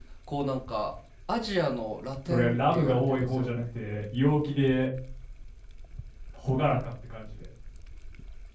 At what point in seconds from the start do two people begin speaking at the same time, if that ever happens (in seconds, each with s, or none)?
2.2 s